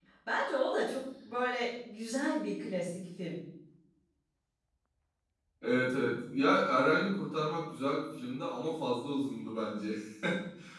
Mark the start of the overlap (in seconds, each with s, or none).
none